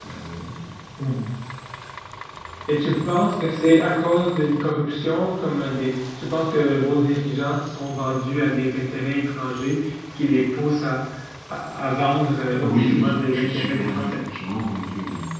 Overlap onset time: 12.6 s

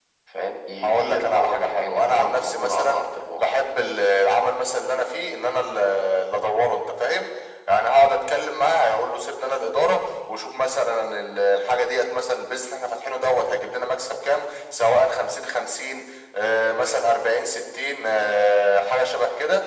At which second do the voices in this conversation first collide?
0.8 s

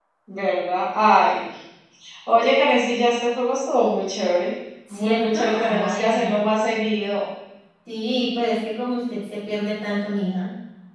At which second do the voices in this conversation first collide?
4.9 s

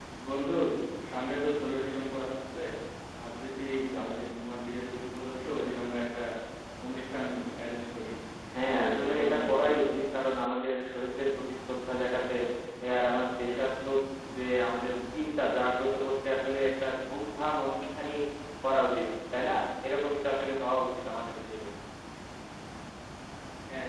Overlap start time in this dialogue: 8.6 s

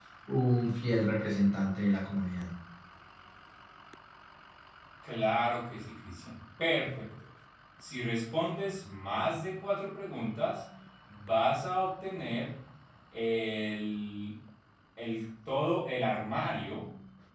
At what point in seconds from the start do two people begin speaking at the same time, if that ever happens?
none

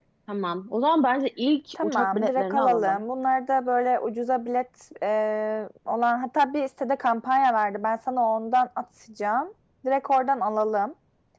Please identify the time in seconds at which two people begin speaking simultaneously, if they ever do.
1.8 s

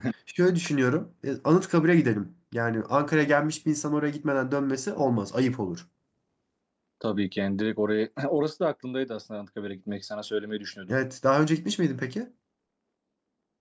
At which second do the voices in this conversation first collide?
none

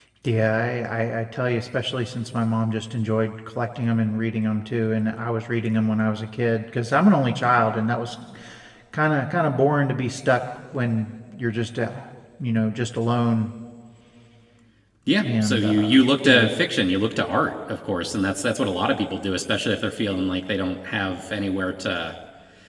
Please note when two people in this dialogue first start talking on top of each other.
15.2 s

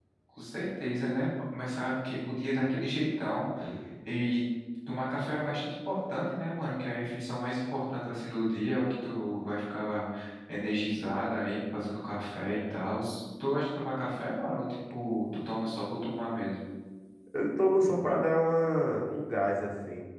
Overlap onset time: none

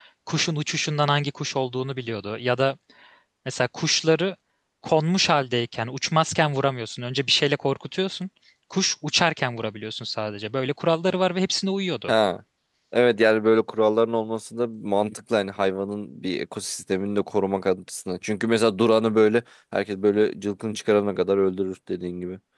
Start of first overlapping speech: none

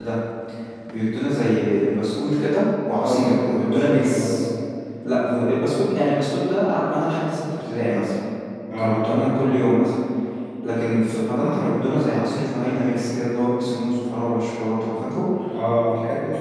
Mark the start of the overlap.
3.0 s

